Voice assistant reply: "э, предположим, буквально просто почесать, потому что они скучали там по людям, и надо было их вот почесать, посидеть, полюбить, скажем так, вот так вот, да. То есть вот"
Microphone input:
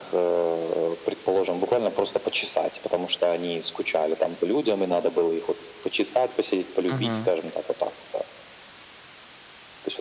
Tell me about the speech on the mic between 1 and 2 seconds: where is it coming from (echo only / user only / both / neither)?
echo only